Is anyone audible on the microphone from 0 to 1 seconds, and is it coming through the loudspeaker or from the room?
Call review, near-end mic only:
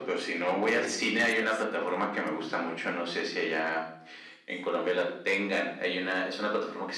both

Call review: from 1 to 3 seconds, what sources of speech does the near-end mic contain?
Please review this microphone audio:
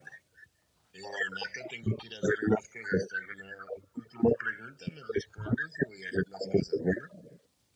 echo only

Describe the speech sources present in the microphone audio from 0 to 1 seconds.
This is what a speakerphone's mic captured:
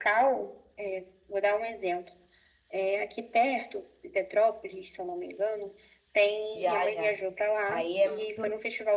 echo only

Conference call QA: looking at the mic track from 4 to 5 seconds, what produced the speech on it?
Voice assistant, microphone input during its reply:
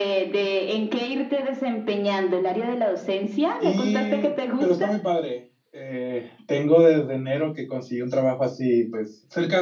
both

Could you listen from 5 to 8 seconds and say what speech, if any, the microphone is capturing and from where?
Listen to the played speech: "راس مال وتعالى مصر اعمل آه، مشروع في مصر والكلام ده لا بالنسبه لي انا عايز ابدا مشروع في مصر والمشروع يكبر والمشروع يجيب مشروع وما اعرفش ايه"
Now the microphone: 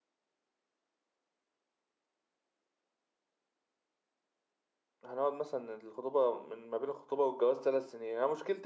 user only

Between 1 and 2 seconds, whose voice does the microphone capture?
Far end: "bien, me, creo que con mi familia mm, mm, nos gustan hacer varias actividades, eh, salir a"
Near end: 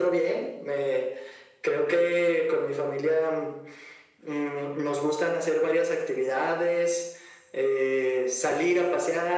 echo only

